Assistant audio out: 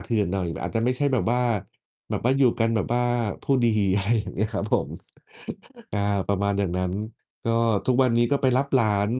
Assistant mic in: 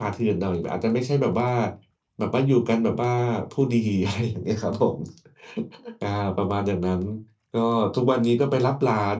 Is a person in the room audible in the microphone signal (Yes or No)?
No